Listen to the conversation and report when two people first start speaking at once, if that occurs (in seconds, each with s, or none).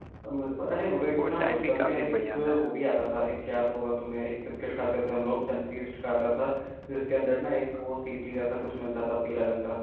1.1 s